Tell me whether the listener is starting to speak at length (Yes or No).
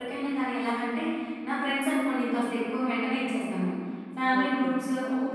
No